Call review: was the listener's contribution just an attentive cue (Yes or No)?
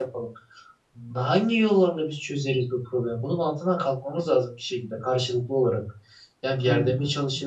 Yes